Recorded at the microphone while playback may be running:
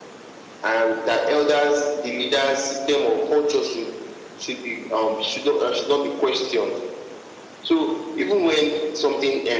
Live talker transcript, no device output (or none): none